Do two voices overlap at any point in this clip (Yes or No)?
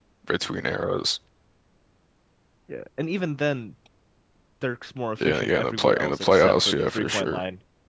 Yes